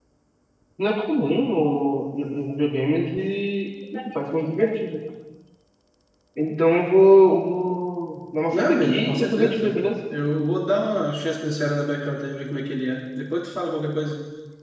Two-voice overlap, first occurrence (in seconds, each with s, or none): 8.5 s